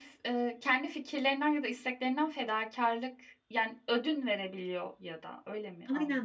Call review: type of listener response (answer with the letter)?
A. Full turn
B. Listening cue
A